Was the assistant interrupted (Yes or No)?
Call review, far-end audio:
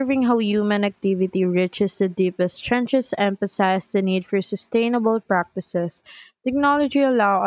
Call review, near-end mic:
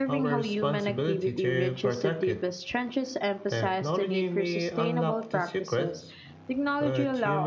Yes